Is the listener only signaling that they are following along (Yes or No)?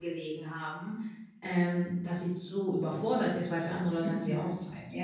No